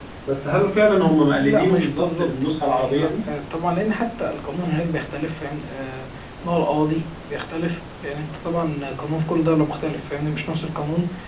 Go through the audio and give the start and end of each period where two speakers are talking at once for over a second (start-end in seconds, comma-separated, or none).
1.3-3.2